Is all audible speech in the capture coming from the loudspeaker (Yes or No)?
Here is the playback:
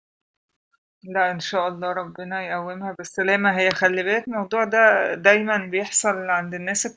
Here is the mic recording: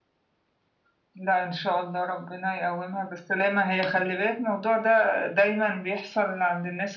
Yes